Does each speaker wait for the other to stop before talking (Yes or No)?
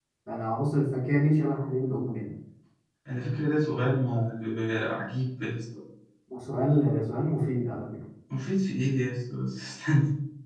Yes